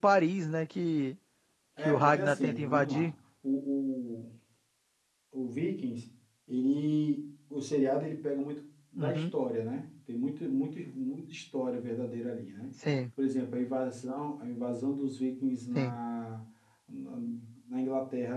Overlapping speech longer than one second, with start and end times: 1.8-3.1

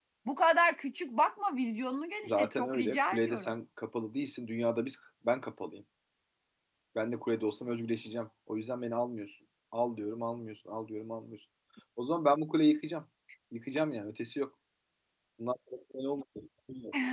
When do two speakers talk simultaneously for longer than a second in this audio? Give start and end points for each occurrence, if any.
2.2-3.5

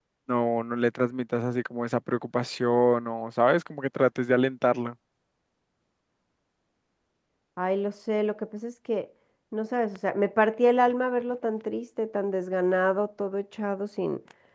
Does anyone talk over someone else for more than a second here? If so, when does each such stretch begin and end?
none

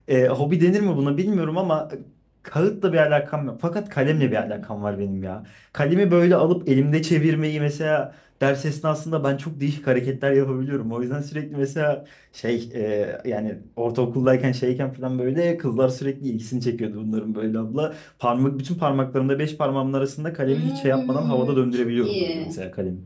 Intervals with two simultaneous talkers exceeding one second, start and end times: 20.5-22.5

